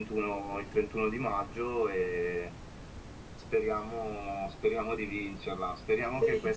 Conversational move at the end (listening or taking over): listening